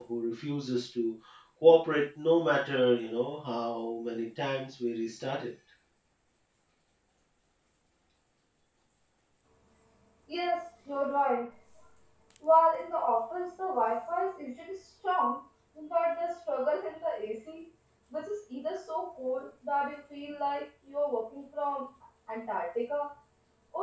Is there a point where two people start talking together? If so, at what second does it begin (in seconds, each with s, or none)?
none